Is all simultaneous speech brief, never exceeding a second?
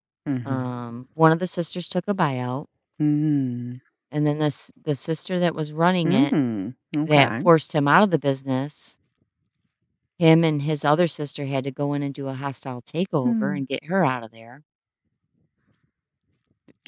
Yes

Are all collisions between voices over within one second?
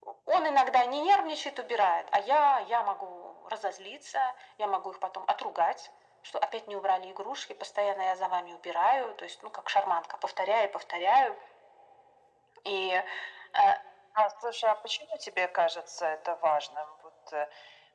Yes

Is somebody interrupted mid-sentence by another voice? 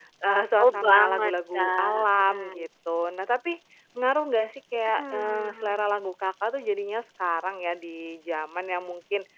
Yes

